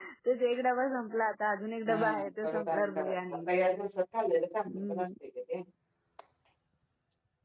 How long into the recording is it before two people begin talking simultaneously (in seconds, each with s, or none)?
1.9 s